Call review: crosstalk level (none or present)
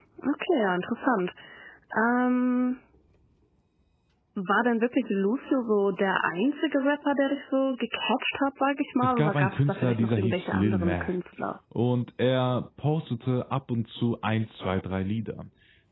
present